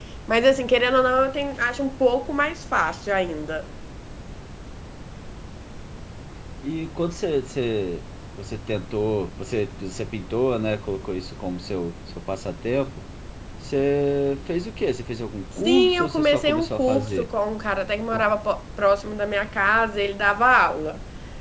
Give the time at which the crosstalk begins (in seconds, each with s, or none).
15.6 s